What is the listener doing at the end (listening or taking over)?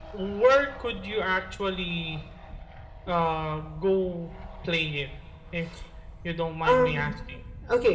taking over